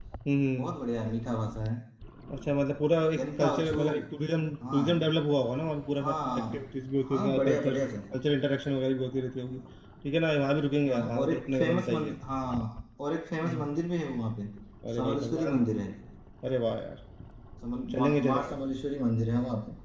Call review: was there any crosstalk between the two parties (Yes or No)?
Yes